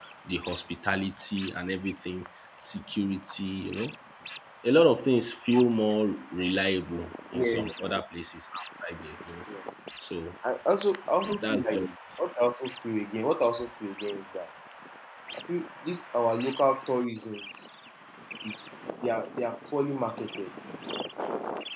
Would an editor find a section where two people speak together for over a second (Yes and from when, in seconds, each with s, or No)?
No